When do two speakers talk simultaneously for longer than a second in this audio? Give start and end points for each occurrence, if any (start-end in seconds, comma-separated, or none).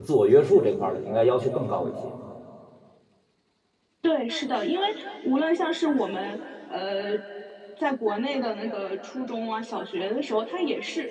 none